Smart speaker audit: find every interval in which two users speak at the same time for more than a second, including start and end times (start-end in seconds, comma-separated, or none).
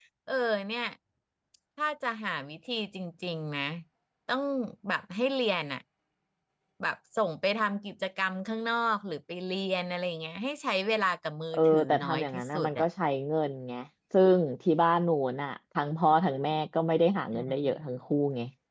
11.5-12.8